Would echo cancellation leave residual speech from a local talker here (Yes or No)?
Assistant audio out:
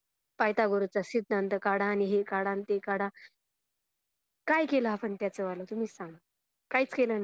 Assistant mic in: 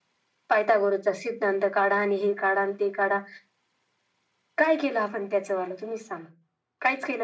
No